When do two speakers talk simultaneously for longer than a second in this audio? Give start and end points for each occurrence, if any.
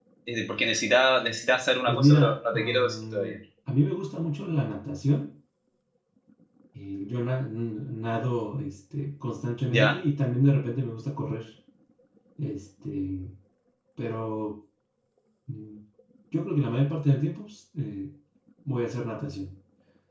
1.9-3.4

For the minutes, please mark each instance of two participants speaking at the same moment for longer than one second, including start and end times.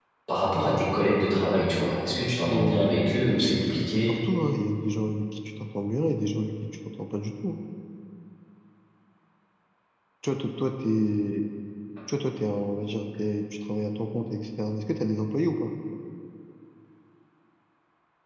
2.5-4.2

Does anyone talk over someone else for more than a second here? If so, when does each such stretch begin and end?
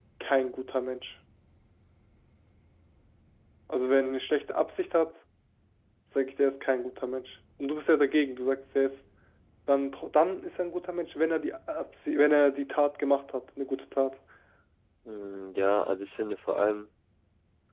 none

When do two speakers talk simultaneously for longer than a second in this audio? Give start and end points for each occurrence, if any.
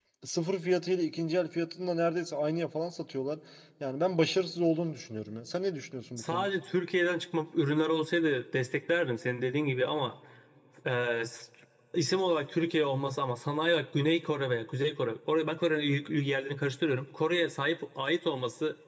none

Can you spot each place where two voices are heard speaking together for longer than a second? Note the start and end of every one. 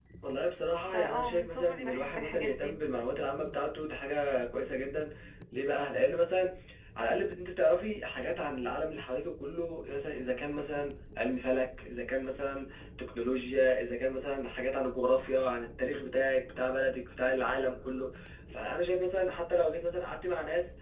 0.9-2.8

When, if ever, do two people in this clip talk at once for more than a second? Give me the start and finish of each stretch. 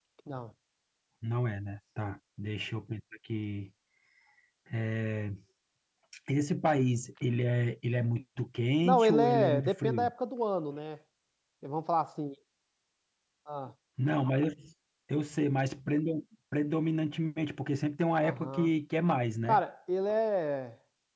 8.8-10.1

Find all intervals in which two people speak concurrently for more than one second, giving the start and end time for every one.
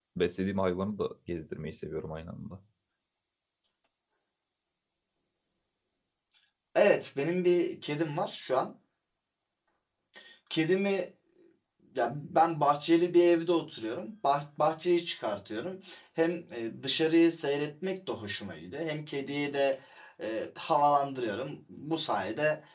none

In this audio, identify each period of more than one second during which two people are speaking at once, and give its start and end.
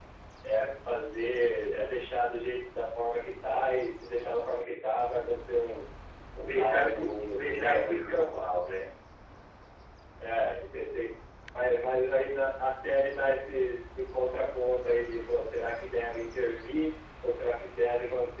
6.5-8.0

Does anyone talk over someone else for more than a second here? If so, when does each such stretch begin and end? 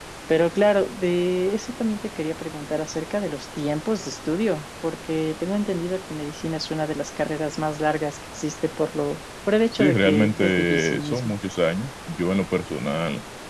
9.7-11.3

